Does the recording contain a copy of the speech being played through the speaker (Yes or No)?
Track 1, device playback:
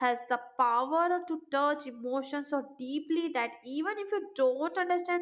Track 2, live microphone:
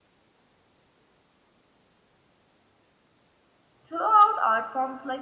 No